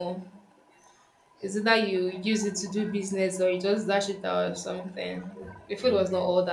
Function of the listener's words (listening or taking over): listening